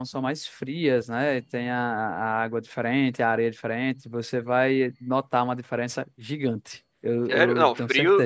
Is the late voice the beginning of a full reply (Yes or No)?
Yes